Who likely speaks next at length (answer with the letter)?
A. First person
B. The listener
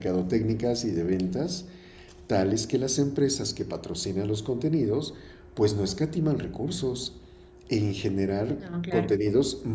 A